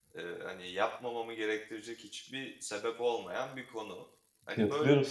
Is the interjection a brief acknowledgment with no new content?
No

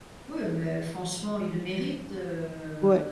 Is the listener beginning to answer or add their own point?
Yes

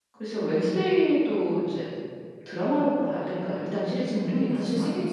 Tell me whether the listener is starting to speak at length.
Yes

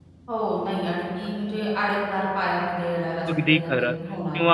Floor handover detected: Yes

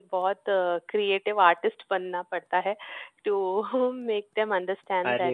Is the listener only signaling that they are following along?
No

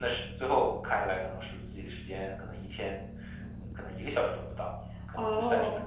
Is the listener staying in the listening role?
No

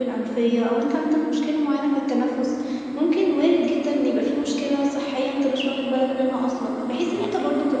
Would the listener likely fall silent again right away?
Yes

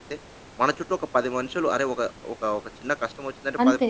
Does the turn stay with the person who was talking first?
Yes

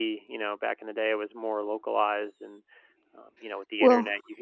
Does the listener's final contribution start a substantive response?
No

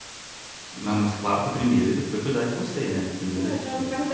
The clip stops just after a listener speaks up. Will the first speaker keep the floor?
No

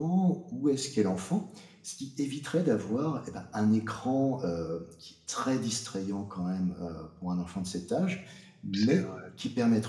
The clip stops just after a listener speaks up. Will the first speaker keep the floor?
Yes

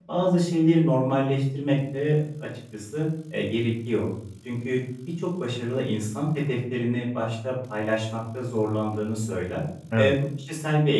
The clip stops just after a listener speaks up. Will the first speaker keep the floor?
Yes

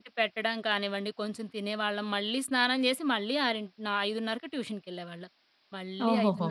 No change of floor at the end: Yes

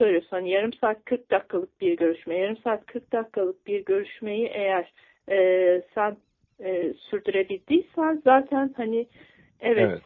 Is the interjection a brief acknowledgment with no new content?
Yes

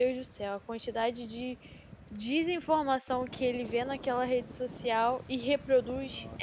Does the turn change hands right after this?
Yes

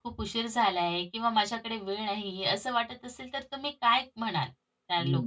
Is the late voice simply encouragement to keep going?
No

